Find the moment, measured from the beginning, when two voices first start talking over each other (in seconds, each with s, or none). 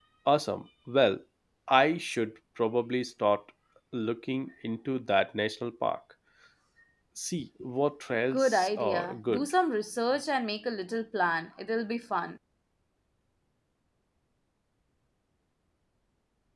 8.3 s